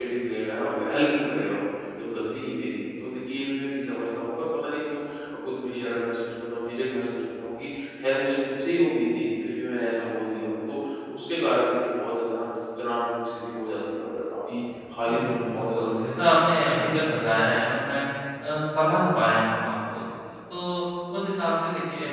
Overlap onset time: 15.0 s

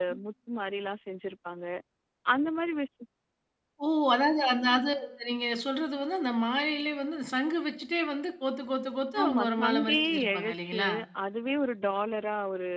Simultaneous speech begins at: 9.2 s

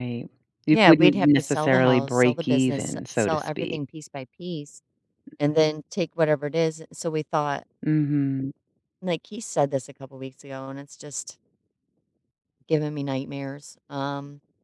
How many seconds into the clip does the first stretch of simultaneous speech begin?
0.7 s

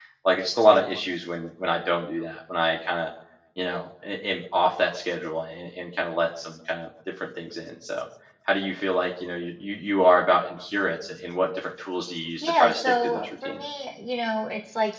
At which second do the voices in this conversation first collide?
12.4 s

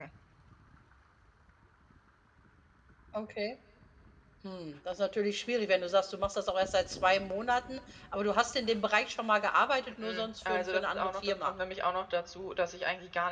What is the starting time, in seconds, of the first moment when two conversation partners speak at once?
9.8 s

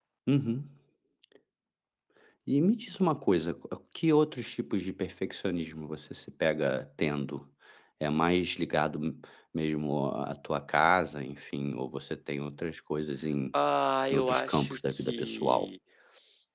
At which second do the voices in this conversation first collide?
14.1 s

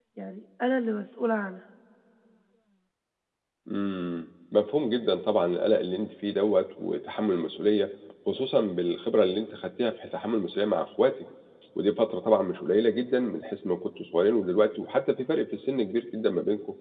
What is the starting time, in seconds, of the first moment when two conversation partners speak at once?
none

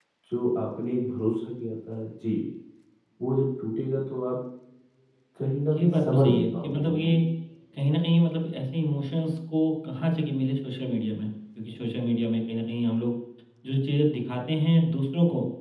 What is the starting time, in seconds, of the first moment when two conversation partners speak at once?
5.7 s

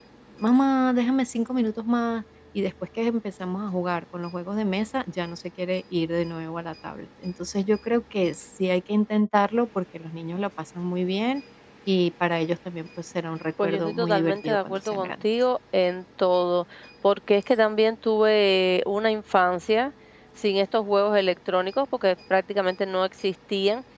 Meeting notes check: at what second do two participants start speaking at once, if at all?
13.6 s

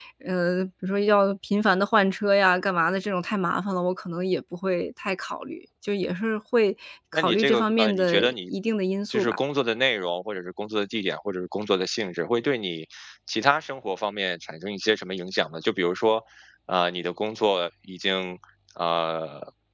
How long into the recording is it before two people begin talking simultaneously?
7.1 s

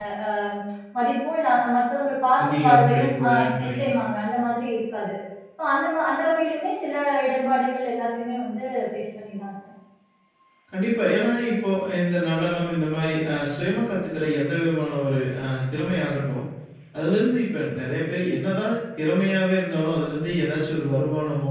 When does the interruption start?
2.4 s

